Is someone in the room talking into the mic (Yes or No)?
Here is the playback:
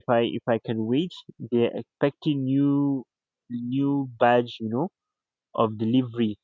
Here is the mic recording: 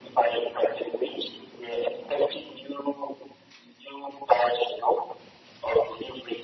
No